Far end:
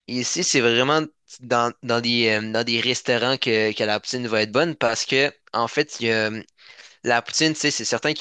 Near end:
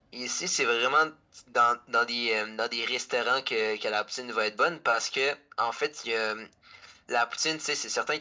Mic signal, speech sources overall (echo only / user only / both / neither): echo only